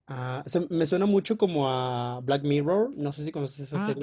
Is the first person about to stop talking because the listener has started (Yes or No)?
Yes